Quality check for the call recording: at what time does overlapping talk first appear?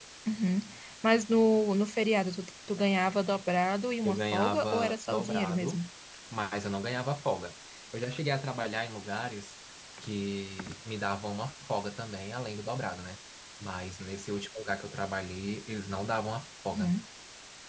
4.0 s

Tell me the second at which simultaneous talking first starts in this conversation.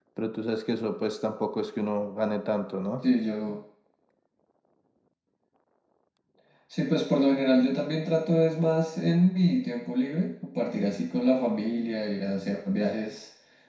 none

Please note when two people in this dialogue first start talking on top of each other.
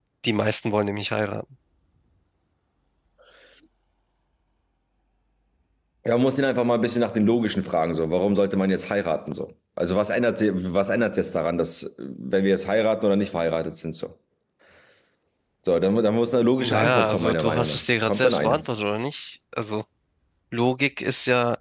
16.6 s

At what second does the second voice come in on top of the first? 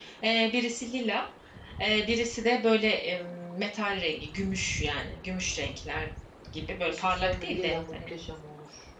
6.9 s

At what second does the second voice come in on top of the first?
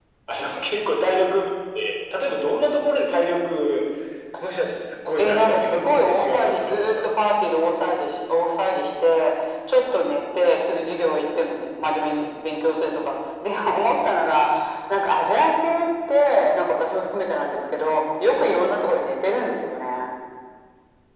5.2 s

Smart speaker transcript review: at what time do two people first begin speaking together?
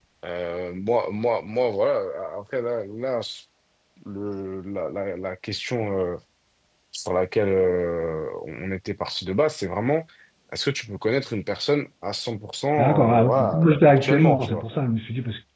12.8 s

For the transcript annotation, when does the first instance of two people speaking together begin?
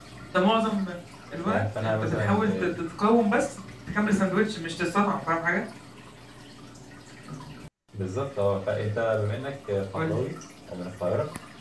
1.5 s

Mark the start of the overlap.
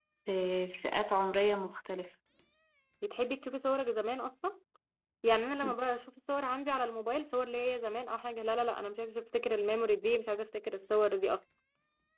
none

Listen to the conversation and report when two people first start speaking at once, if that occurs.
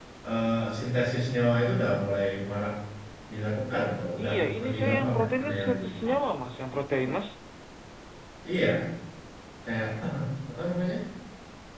4.2 s

